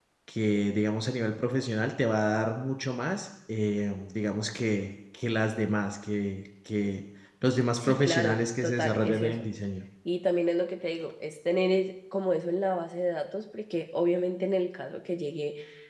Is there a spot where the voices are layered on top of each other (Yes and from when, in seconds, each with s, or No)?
Yes, from 7.8 s